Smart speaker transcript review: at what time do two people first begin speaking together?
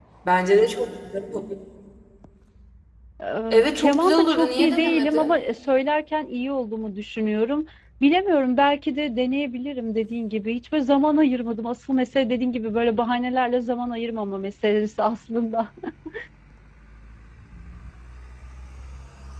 4 s

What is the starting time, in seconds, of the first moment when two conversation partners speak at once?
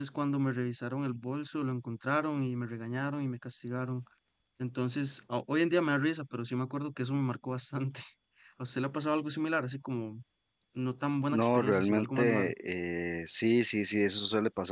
11 s

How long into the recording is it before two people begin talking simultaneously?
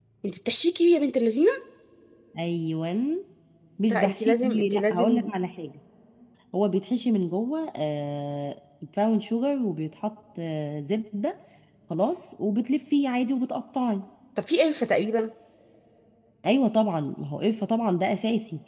4 s

